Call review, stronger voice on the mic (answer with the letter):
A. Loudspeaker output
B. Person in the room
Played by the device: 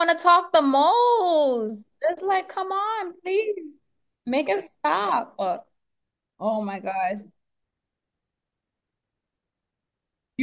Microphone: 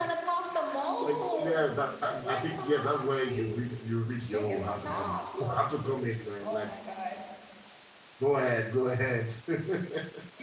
B